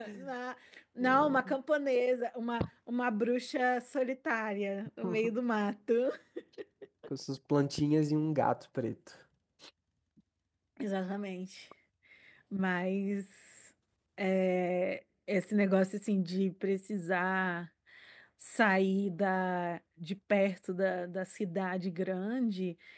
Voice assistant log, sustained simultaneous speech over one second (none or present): none